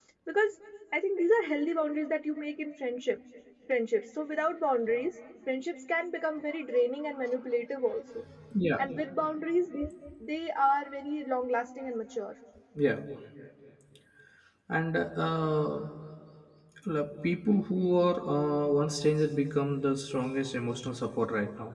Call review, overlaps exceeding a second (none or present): none